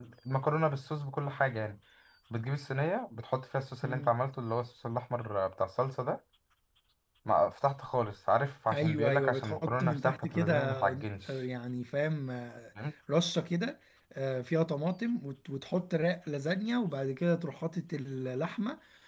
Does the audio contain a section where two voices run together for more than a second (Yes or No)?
Yes